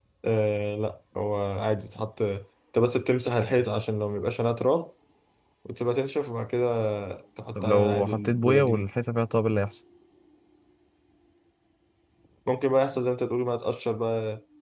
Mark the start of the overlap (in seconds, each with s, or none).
7.5 s